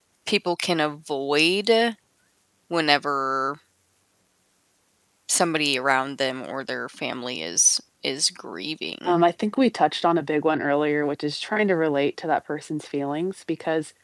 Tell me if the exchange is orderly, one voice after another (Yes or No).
Yes